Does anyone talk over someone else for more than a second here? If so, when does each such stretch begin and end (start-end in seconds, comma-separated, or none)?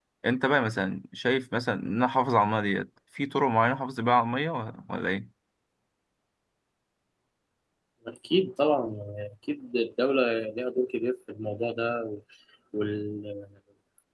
none